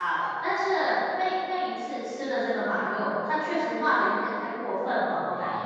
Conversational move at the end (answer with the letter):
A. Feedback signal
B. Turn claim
B